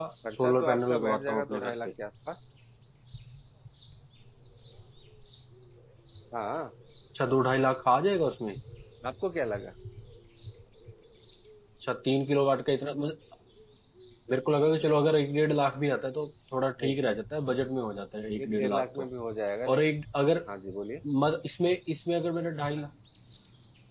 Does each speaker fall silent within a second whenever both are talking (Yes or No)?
No